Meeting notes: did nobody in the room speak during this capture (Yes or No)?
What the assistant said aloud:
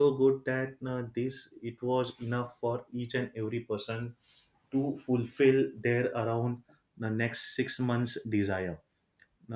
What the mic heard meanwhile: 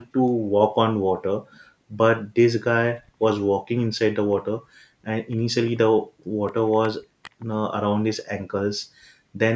No